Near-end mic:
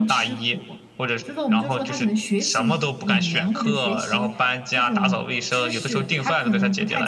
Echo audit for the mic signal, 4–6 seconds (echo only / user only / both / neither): echo only